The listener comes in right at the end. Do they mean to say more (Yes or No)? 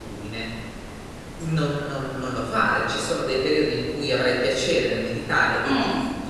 No